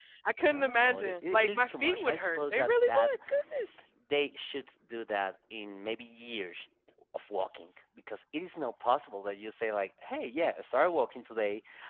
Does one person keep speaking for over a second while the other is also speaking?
Yes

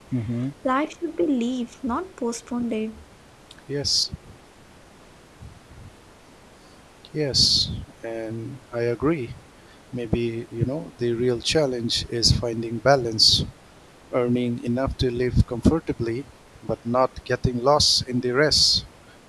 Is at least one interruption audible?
No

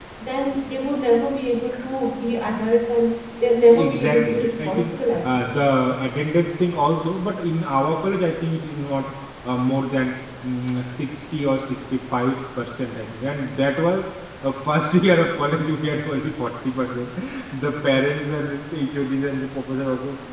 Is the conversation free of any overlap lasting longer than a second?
No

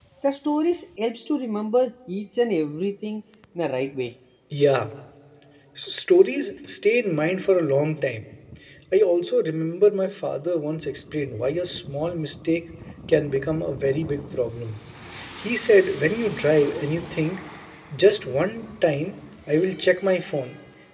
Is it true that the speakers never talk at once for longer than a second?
Yes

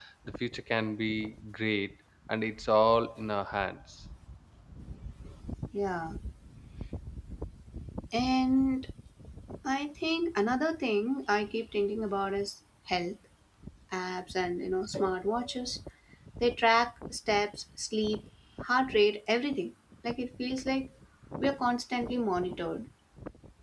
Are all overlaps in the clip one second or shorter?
Yes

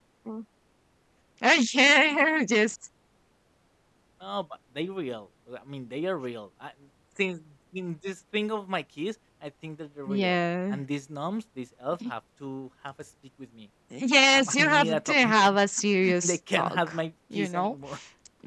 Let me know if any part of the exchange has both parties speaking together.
Yes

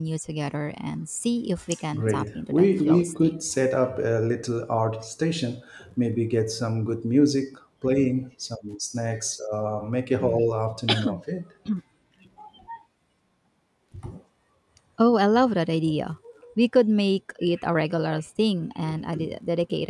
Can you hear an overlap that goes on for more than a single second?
Yes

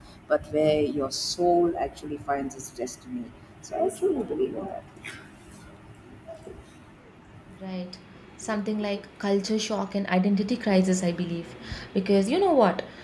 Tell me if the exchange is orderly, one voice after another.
Yes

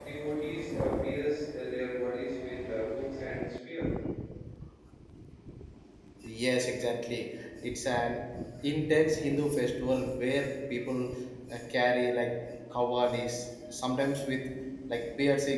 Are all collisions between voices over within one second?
Yes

